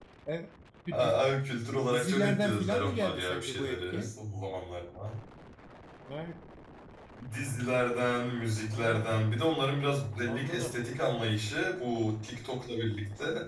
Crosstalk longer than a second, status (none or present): present